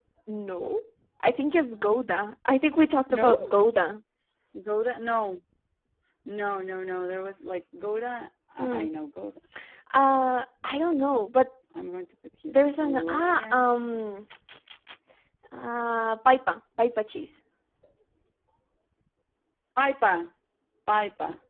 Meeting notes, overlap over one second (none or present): present